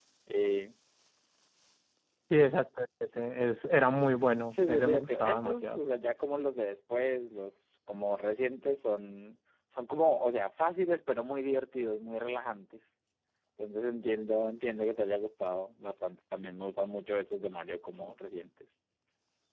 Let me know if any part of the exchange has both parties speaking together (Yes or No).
Yes